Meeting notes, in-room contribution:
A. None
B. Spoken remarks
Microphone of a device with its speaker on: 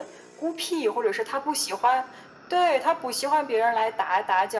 A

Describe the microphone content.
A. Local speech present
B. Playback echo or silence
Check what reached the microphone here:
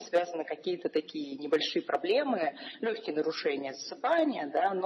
B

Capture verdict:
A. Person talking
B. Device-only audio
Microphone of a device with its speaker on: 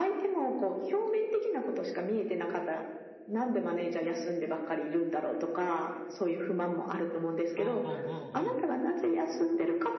A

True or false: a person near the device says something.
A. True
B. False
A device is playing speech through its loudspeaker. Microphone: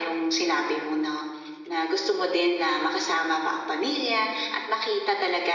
B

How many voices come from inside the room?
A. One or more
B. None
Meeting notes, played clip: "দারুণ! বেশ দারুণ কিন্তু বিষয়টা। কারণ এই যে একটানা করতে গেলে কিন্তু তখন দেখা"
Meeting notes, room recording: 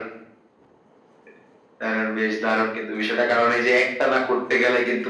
B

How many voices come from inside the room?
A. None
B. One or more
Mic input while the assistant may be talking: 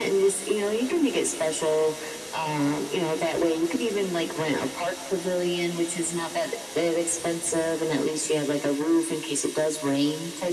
A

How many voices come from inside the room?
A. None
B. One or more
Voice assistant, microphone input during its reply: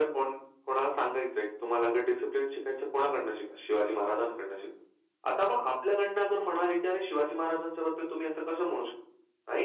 A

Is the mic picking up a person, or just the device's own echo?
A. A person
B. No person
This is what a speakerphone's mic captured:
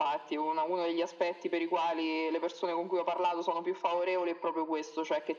B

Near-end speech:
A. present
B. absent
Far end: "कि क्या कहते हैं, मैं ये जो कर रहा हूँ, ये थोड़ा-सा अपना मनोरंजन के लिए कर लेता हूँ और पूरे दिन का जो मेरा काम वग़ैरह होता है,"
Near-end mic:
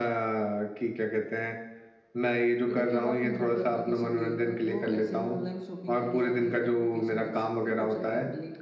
A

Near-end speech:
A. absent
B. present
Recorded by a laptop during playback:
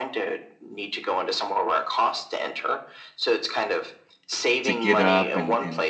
B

